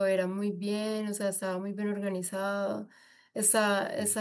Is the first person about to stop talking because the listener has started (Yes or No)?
No